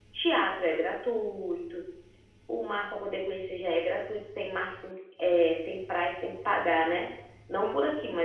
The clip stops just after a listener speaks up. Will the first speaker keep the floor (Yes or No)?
Yes